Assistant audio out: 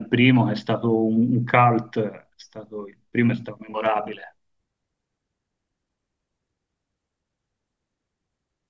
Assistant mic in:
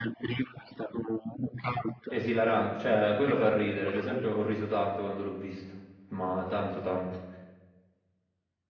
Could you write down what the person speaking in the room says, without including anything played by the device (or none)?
Esilarante, cioè quello fa ridere, ad esempio ho riso tanto quando l'ho visto, ma tanto tanto.